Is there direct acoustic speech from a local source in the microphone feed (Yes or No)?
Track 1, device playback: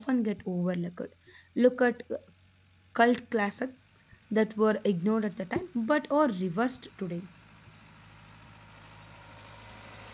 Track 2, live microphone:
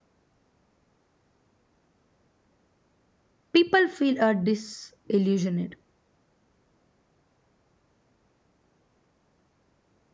Yes